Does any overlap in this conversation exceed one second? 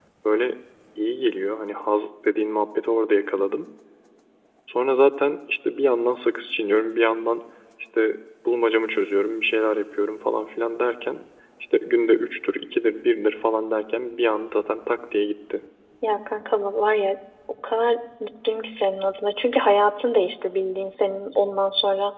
No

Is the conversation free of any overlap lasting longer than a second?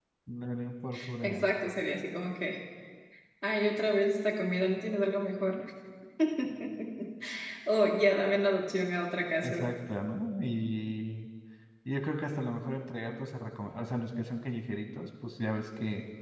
Yes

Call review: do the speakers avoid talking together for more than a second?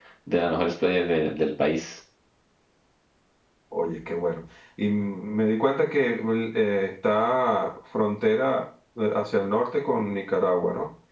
Yes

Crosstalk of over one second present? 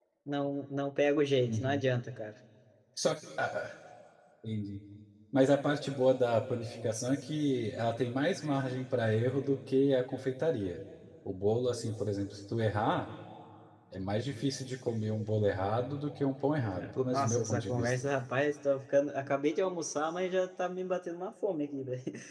Yes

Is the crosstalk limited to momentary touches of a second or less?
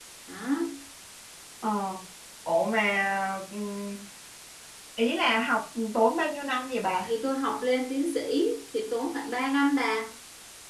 Yes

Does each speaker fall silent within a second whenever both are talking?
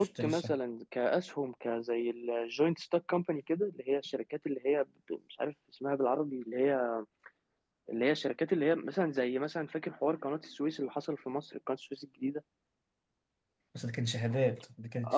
Yes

